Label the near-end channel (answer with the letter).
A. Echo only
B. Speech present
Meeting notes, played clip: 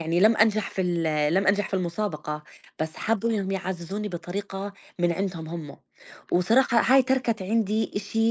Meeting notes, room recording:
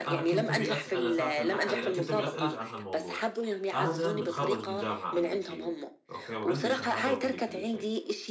B